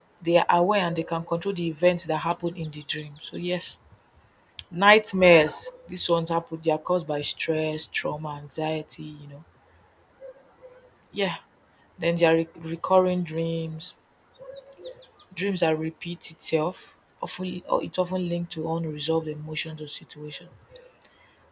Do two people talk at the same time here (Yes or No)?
No